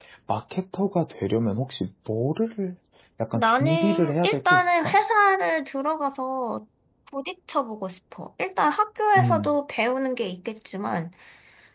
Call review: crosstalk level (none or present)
present